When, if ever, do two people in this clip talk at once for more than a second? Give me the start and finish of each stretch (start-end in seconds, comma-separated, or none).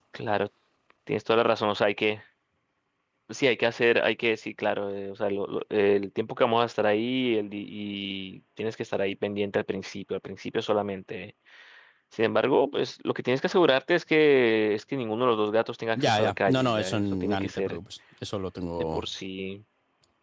16.0-17.8